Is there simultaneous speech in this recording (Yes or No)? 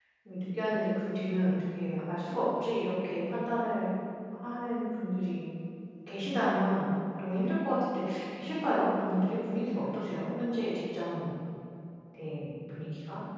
No